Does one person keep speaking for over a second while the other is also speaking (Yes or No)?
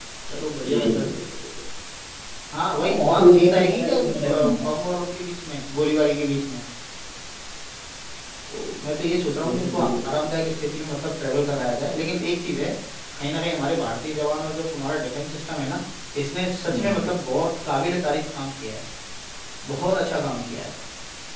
Yes